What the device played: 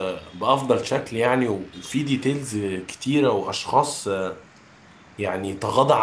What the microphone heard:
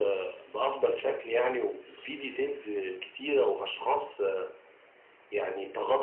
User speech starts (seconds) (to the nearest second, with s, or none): none